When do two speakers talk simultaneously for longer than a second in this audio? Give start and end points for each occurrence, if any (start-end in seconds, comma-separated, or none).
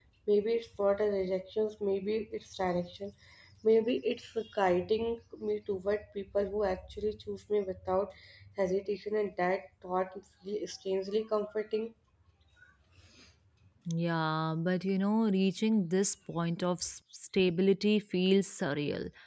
none